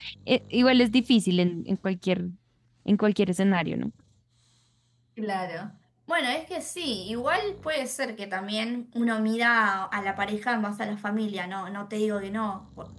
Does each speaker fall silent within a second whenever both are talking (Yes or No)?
Yes